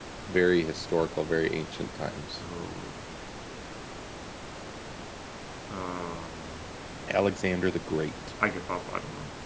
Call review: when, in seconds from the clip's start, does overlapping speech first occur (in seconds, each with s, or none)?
none